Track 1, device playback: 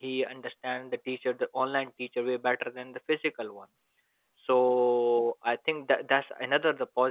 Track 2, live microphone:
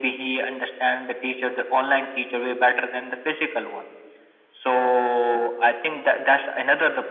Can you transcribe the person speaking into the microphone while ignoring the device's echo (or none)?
none